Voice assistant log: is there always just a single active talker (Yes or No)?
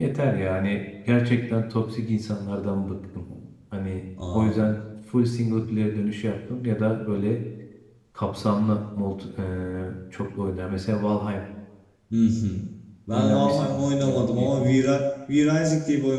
No